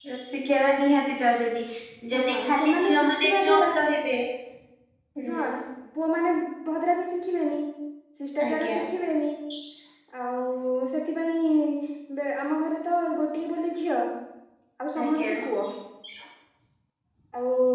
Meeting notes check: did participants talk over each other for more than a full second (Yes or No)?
Yes